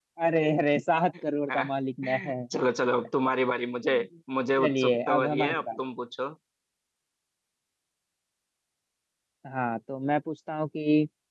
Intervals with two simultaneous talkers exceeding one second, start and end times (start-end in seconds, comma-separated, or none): 4.6-5.8